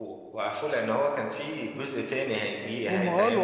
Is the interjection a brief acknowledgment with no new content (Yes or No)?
No